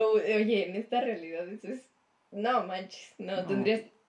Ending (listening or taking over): listening